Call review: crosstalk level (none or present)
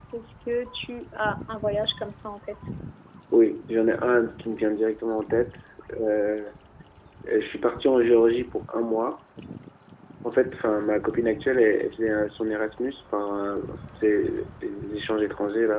none